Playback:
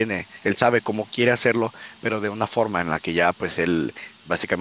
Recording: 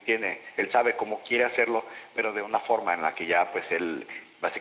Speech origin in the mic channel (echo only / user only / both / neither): echo only